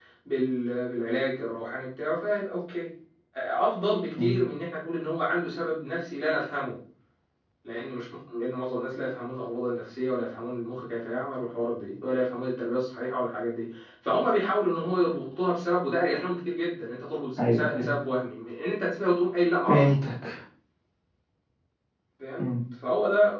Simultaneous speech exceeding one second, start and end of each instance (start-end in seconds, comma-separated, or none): none